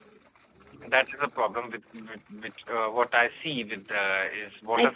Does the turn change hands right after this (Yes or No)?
No